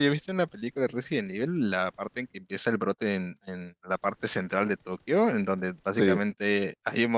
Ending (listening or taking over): listening